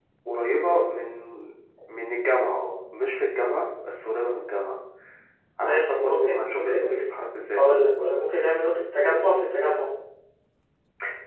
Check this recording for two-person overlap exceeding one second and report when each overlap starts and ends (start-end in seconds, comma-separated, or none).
5.6-7.0